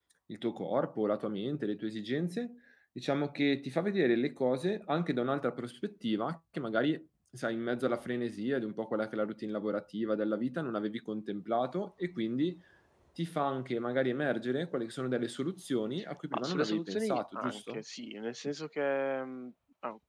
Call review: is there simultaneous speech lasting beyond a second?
Yes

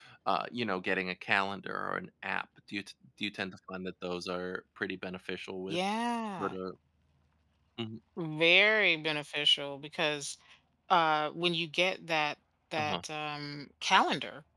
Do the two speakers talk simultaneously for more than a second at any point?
No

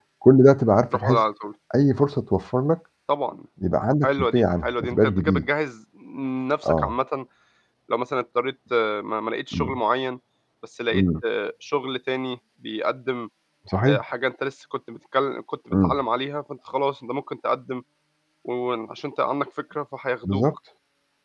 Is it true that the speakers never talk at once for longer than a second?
No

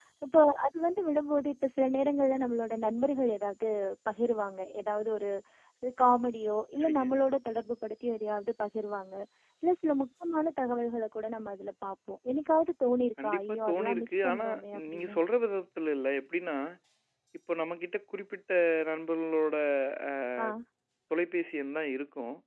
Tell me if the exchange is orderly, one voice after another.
No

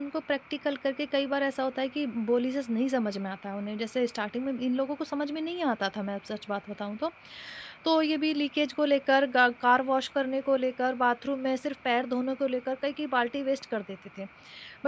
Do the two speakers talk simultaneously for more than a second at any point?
No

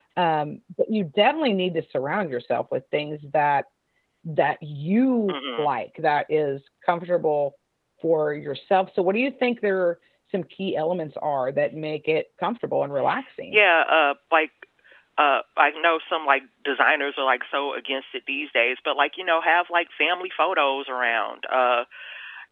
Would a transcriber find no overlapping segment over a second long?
Yes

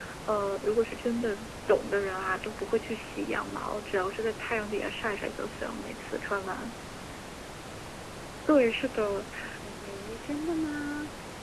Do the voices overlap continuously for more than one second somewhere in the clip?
No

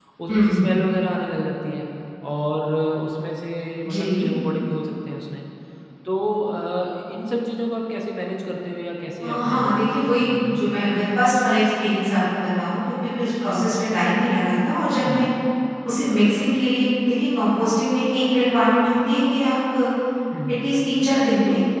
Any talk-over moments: Yes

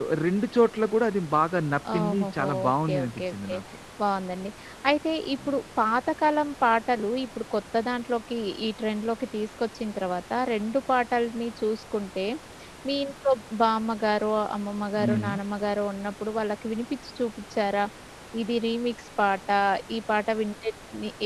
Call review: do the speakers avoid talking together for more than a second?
No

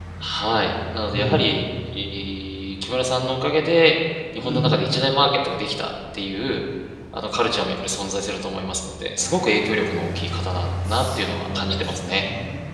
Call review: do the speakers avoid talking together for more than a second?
No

